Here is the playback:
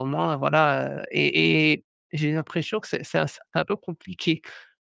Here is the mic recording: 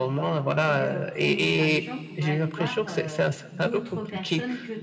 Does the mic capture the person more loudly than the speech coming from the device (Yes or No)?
No